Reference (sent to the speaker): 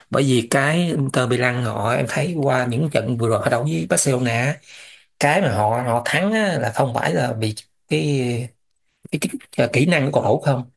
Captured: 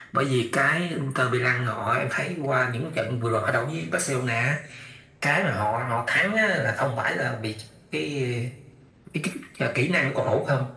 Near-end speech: none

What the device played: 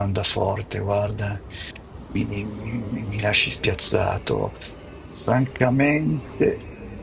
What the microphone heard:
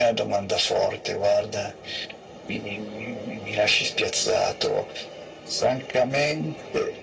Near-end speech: none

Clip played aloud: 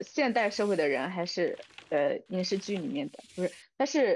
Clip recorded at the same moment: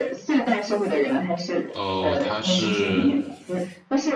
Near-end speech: present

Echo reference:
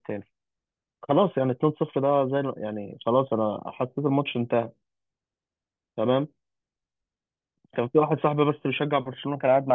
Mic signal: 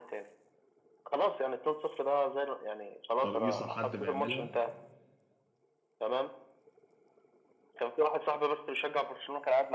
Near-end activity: present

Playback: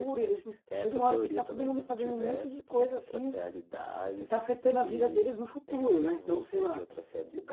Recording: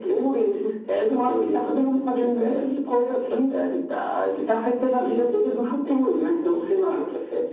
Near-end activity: none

